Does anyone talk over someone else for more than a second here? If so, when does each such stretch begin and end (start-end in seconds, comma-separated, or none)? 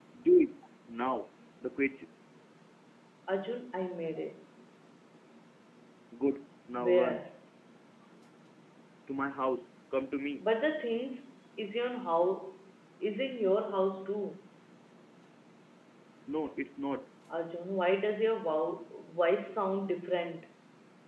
none